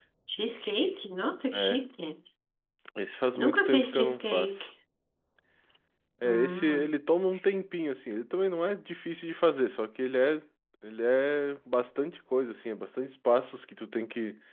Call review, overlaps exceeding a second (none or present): present